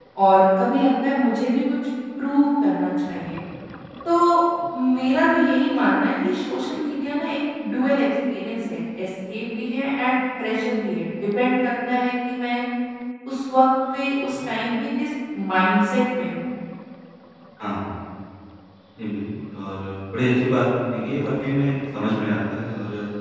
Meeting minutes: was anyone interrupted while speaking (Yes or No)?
No